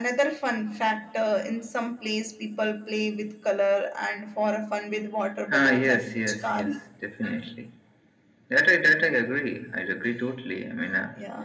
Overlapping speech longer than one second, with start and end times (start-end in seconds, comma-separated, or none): 5.5-6.8